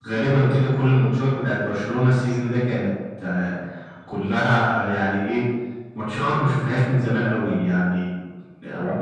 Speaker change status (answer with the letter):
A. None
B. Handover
A